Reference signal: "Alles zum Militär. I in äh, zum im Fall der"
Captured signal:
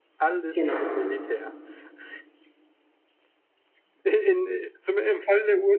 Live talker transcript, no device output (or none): genau.